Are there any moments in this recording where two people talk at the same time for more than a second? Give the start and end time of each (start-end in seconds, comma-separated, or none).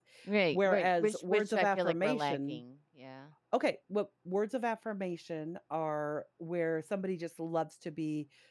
0.5-2.6